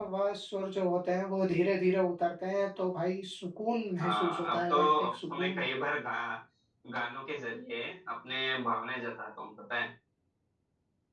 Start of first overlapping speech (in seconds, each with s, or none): 4.0 s